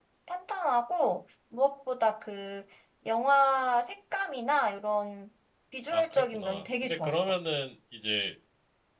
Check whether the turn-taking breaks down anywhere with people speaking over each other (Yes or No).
Yes